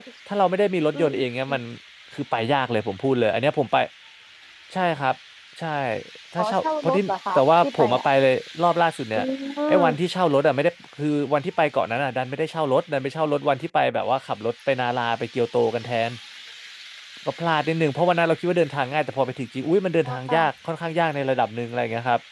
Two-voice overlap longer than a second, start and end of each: 6.4-8.1

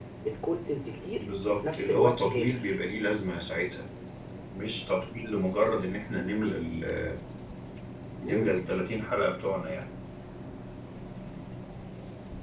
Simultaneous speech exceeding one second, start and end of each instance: 1.2-2.7

